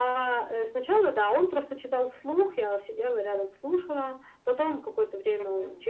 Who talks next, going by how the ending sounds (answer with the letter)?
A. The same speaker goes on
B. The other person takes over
A